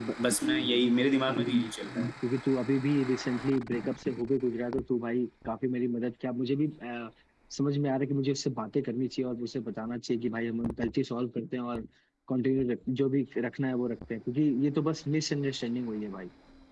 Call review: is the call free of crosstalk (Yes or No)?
Yes